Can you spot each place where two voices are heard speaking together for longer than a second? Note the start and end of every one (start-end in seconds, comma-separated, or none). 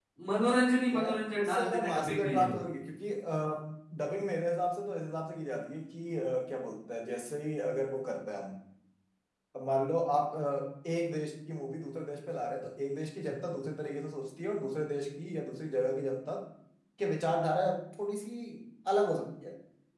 0.9-2.6